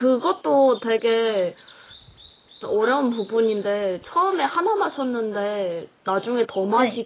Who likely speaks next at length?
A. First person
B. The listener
A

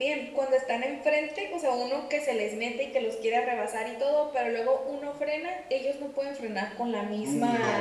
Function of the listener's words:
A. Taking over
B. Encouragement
B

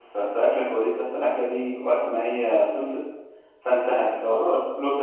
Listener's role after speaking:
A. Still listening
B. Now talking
A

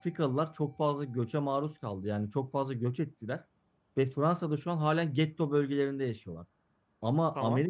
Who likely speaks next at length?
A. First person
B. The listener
A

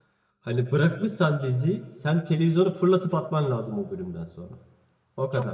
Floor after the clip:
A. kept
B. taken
B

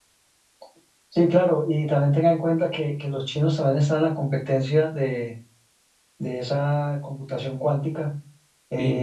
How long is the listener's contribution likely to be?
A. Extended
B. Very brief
B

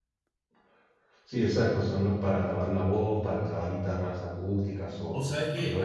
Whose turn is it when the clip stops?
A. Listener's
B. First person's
A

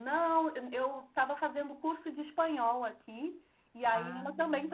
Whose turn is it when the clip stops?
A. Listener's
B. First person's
B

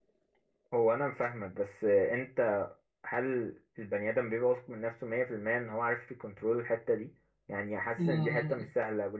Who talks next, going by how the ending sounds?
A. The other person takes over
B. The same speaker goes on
B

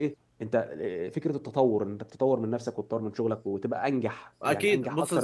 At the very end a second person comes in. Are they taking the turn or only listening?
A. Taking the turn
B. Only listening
A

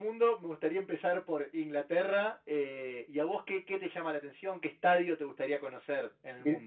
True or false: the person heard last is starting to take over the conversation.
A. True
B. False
A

